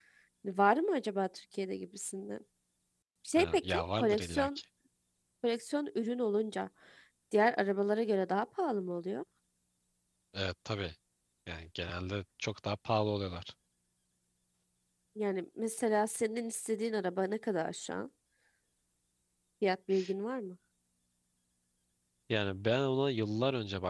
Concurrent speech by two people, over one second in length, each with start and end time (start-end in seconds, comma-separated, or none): 3.4-4.6